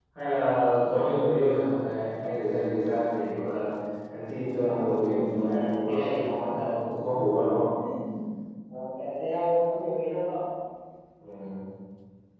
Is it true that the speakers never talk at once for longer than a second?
No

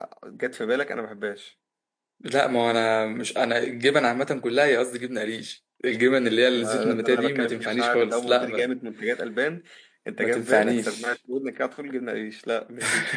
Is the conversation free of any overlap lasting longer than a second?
No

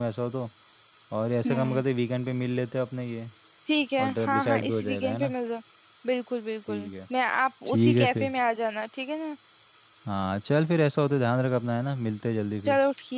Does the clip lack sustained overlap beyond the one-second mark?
No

